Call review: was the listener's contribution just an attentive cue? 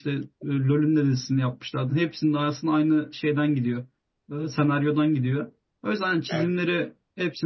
Yes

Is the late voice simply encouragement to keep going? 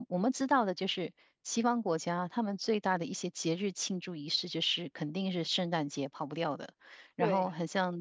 Yes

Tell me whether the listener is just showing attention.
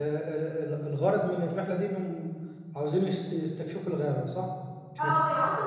No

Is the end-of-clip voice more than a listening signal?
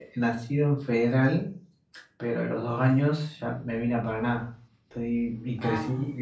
No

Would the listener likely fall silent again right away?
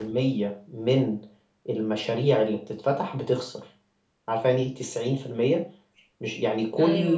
Yes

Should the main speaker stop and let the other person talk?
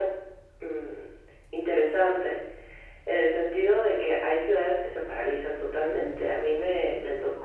No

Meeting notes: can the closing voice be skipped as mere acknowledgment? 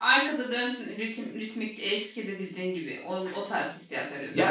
No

